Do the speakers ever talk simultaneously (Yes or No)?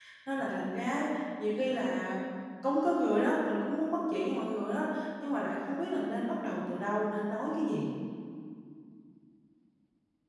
No